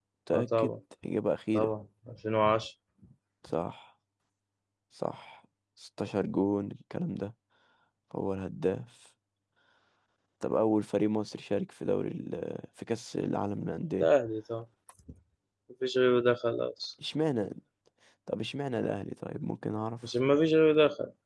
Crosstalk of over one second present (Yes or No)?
No